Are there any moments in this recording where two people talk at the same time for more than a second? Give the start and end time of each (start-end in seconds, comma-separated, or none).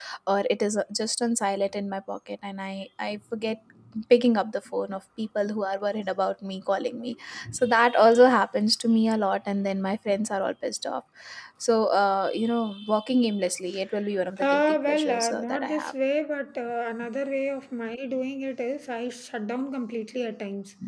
14.5-15.9